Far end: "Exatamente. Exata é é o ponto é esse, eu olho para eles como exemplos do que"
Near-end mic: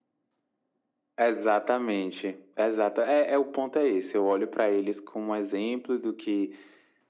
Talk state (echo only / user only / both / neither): echo only